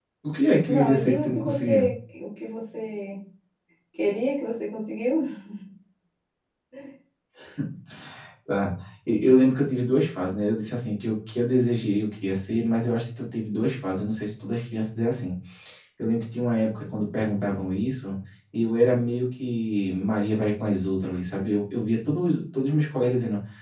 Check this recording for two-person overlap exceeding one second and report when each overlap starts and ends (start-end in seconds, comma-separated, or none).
0.7-1.9